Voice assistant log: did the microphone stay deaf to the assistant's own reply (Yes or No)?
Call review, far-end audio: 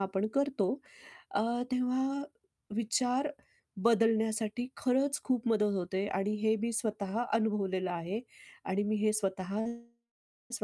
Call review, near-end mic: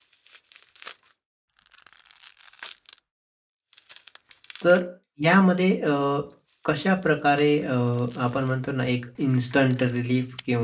Yes